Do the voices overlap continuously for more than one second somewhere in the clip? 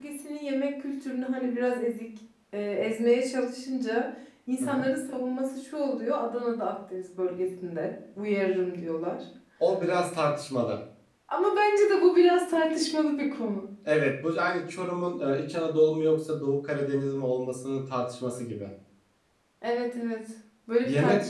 No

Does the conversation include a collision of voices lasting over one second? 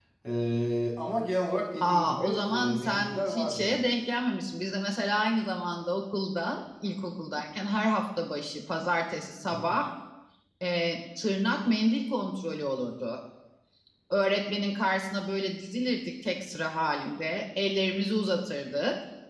Yes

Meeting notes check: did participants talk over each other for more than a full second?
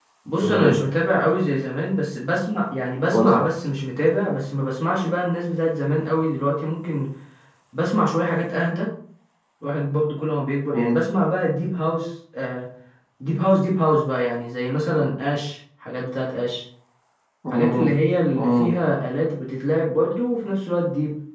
No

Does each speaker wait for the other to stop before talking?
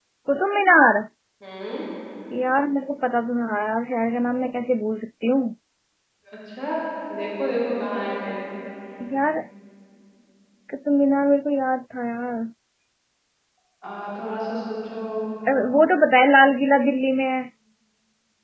Yes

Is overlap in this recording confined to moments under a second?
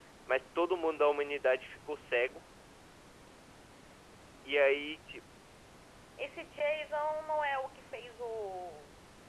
Yes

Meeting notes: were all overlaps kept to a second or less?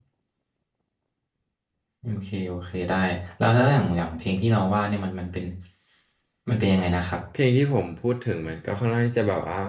Yes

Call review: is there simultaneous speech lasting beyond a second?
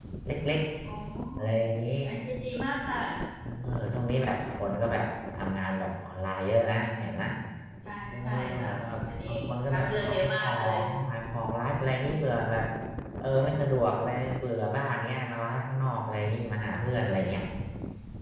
Yes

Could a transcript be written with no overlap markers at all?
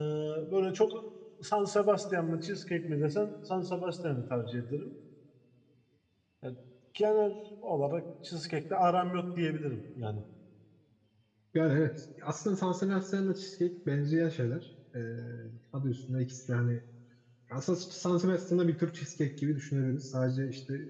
Yes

